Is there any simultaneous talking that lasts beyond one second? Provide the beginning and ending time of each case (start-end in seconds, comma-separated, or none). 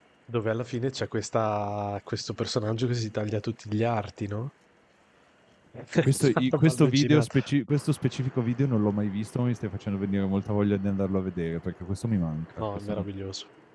6.0-7.3